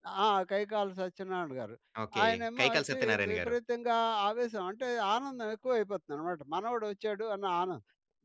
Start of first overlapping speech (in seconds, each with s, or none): 2.2 s